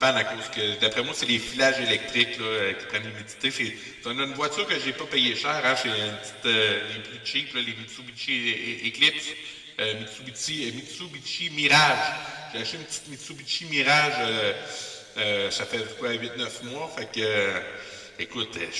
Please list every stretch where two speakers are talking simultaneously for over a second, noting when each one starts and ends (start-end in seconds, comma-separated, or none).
none